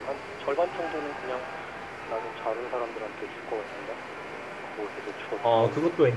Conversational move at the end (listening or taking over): taking over